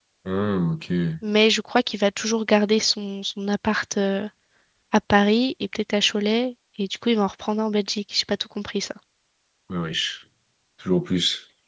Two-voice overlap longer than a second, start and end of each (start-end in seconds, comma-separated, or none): none